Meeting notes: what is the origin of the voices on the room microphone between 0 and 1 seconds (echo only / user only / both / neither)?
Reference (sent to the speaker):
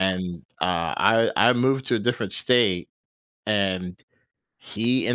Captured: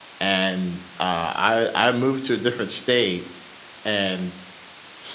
echo only